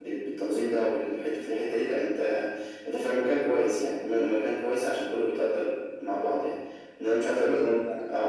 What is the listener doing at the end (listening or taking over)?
listening